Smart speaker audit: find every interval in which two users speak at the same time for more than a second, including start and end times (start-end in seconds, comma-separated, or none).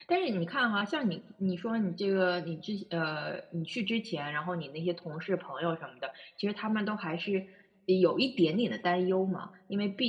none